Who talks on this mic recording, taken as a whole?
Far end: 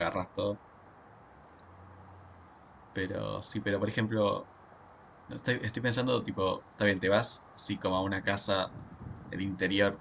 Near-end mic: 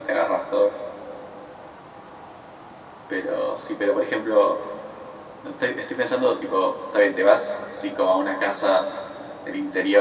echo only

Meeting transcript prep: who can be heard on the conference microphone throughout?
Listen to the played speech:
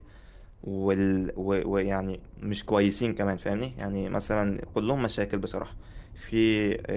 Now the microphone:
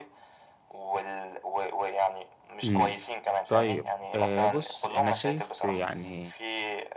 both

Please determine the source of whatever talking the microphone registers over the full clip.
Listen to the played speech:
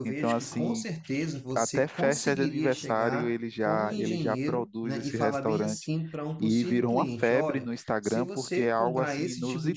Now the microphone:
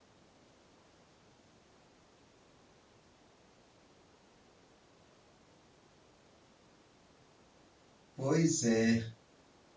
user only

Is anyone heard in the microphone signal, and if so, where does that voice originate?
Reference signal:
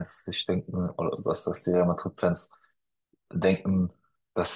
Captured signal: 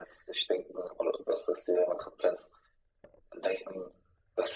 echo only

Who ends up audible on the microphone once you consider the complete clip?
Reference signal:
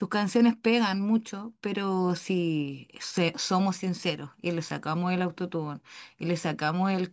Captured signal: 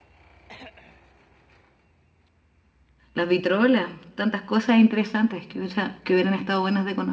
user only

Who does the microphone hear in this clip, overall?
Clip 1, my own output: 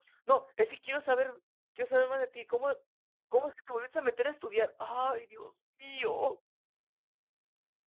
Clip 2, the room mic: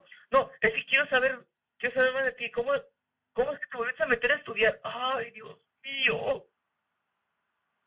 echo only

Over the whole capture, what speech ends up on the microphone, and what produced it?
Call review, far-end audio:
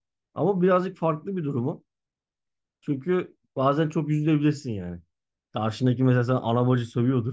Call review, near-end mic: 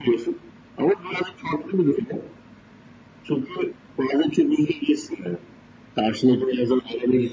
echo only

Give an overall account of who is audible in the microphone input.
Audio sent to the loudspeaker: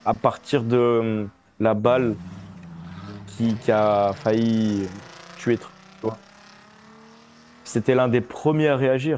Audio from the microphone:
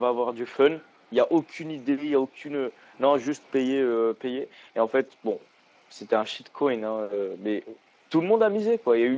user only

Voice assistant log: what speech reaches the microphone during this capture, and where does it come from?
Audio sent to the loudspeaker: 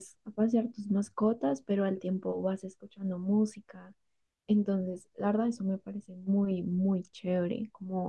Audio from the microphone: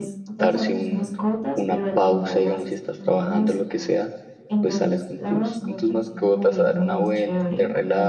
both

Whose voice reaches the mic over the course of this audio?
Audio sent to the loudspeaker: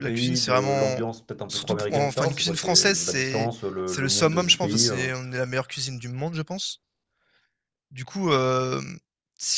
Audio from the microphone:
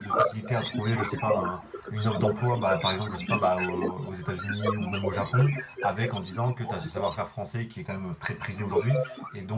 both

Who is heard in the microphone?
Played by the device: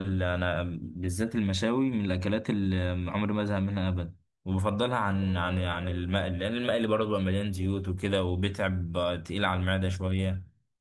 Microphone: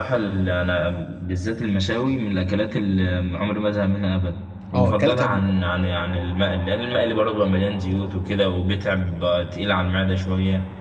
both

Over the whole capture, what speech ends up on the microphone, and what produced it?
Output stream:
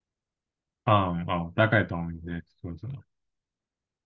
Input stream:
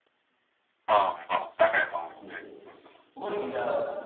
both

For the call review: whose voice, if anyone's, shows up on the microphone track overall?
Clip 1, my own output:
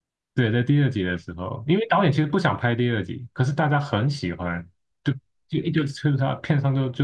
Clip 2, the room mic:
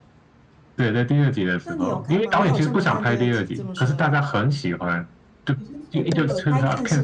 both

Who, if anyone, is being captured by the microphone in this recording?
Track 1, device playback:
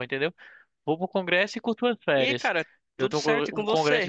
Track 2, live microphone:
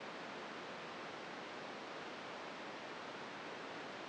neither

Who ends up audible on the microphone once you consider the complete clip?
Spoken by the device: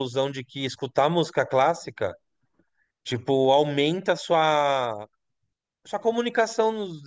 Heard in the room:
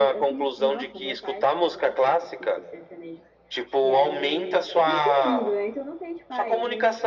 both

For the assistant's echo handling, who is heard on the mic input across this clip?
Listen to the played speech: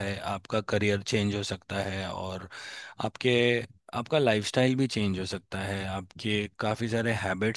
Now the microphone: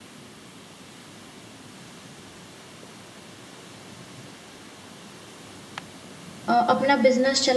user only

